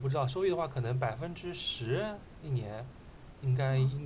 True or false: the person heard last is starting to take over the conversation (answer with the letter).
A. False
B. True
A